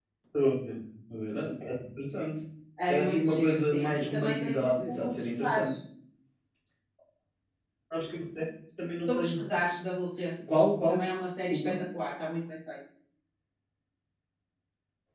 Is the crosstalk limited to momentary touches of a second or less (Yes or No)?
No